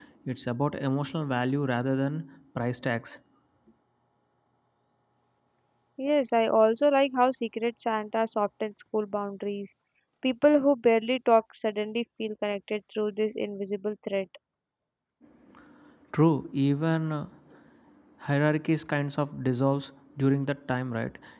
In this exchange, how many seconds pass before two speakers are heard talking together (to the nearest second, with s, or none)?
none